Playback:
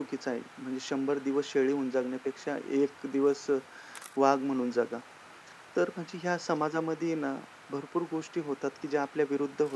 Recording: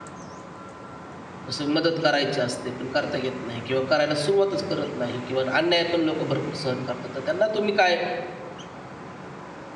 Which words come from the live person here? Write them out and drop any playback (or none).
असं मदत करायची असते, पण करता येत नाही किंवा करायला सुरुवातच करत नाही किंवा अन्याय पण लोकं भरपूर सहन करतात. तर त्यांना तुम्ही काय